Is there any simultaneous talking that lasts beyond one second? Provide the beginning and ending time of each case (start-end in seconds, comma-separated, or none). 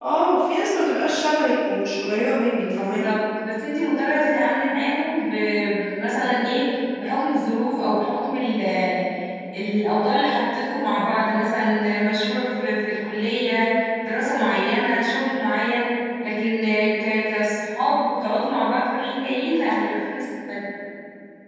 none